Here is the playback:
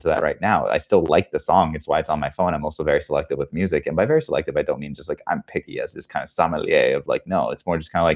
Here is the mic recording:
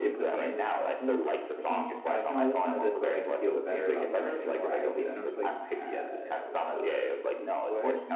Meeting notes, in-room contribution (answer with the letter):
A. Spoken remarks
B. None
A